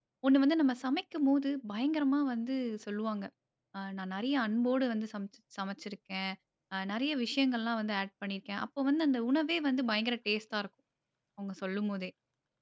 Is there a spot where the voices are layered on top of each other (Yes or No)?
No